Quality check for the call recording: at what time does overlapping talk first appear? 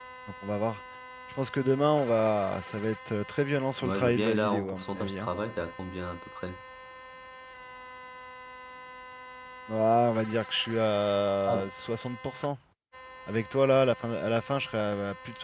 3.8 s

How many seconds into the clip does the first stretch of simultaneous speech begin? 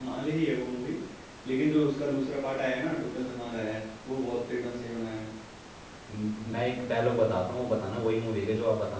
none

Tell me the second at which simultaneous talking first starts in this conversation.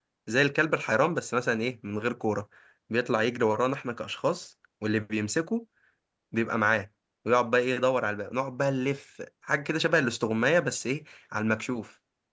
none

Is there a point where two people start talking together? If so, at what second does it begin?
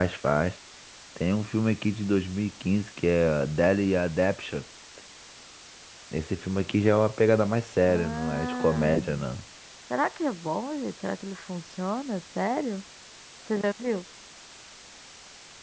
7.8 s

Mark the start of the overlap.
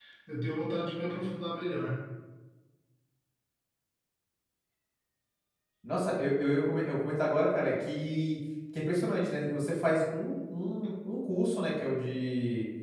none

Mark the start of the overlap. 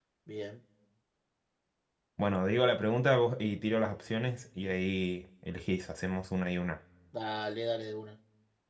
none

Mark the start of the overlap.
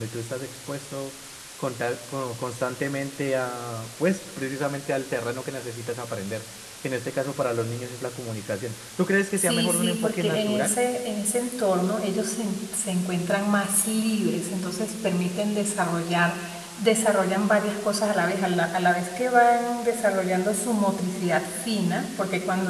9.4 s

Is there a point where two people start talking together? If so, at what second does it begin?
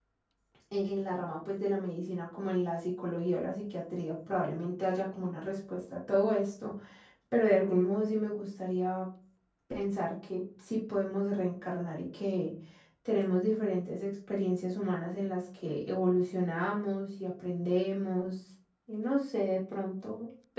none

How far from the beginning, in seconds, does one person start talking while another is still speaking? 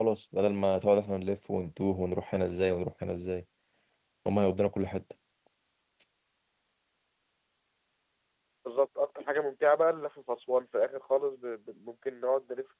none

